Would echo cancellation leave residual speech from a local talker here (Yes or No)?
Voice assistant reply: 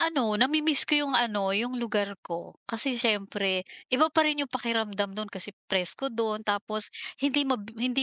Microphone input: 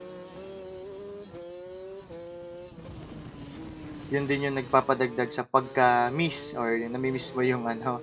Yes